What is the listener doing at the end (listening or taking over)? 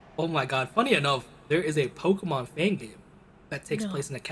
listening